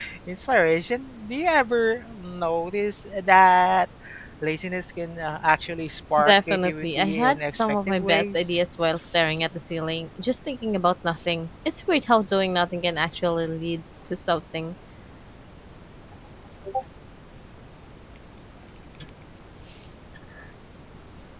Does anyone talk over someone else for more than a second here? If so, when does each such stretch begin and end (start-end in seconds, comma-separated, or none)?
6.2-8.5